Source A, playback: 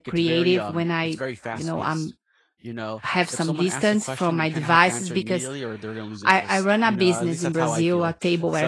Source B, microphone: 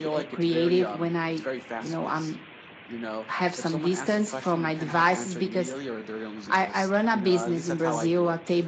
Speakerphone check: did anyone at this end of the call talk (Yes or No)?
No